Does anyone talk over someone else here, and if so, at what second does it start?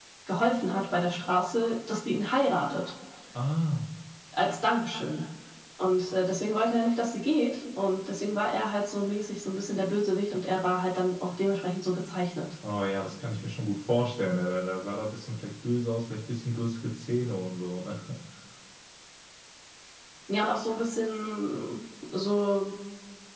none

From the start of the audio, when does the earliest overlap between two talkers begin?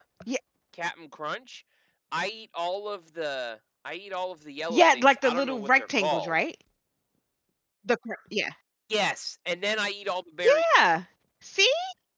4.7 s

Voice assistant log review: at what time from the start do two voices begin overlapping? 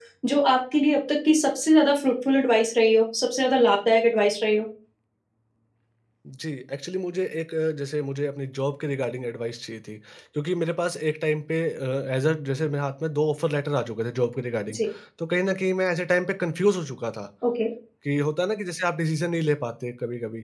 none

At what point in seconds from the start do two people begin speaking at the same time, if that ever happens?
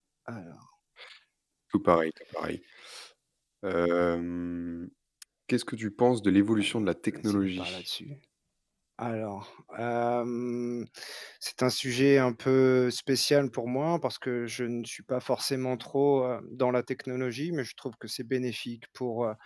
6.6 s

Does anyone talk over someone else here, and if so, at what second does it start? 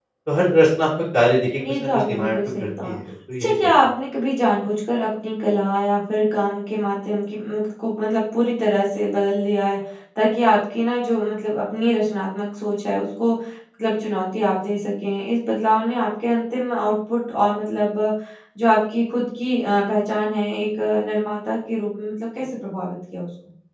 1.7 s

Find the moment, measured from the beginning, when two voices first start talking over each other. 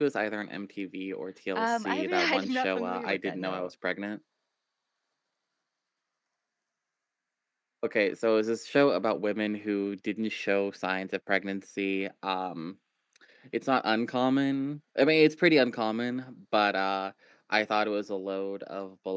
1.6 s

